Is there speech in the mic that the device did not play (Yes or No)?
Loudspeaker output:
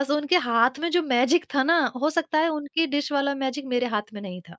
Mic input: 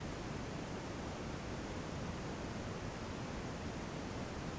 No